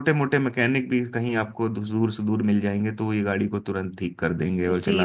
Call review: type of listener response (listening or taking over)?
taking over